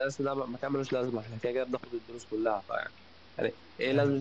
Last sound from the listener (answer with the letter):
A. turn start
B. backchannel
B